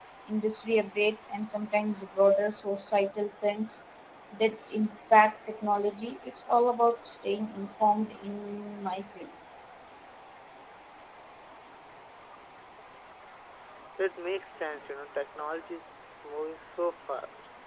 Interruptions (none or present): none